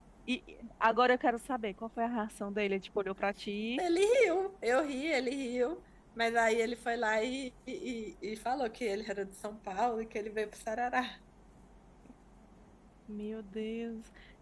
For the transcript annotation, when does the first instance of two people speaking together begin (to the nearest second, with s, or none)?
none